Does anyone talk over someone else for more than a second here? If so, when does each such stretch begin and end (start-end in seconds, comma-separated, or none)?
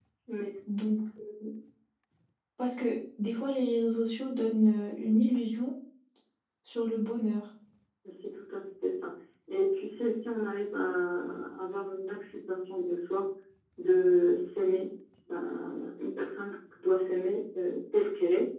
none